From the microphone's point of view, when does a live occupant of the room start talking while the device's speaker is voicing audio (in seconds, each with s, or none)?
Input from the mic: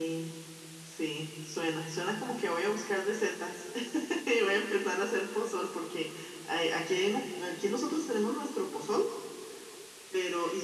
none